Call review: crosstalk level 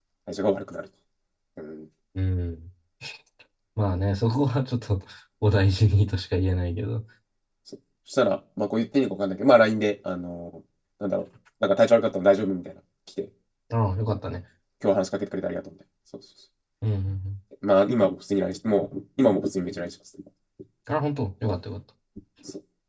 none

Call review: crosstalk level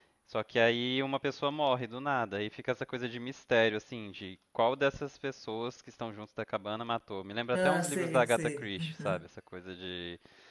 present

